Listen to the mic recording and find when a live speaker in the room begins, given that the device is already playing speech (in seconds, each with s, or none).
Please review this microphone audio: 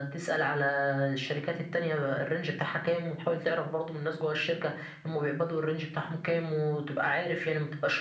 none